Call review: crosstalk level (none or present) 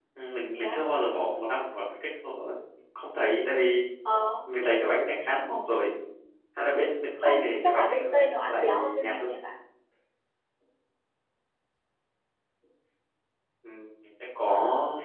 present